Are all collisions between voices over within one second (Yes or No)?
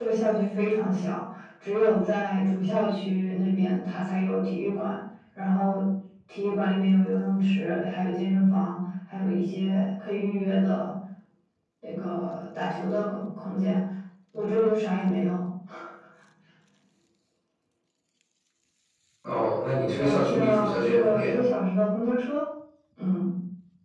No